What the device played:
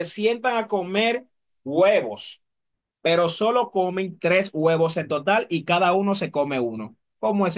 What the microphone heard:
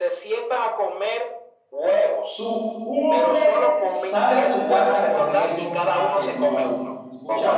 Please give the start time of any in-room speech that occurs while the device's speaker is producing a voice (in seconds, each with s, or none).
2.2 s